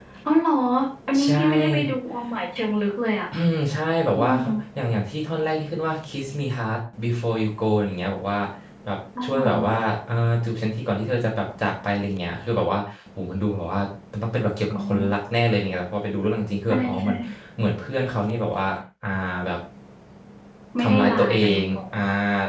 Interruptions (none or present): present